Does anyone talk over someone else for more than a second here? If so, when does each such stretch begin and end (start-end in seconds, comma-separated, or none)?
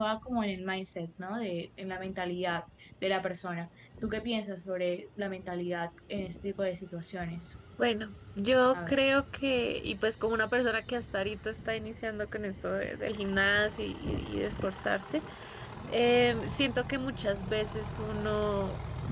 none